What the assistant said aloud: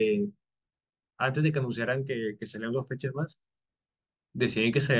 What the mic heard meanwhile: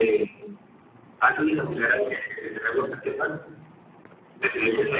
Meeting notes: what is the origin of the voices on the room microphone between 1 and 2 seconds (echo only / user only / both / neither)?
echo only